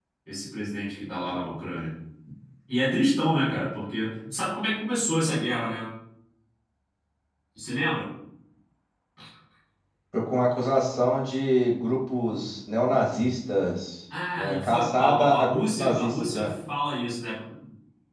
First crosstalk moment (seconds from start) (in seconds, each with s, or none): 14.4 s